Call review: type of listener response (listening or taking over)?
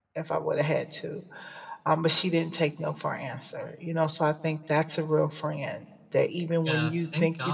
taking over